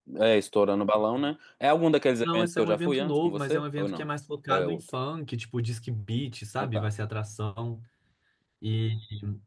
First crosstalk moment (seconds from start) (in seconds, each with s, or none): 2.2 s